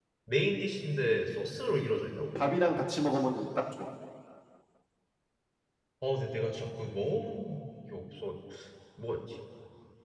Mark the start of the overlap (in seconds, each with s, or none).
none